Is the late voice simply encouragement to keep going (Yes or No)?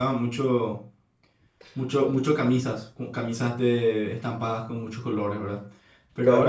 Yes